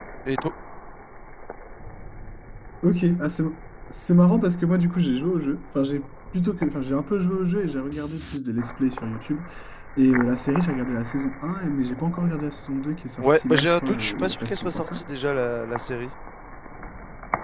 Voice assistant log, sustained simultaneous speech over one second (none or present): present